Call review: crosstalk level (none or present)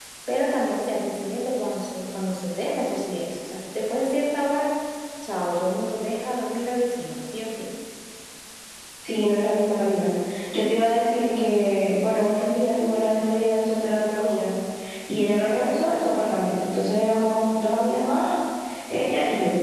none